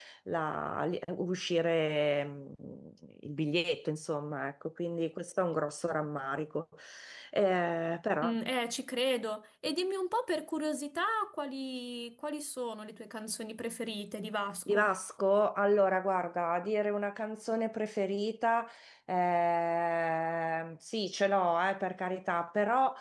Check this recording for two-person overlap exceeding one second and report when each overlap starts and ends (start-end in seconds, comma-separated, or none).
none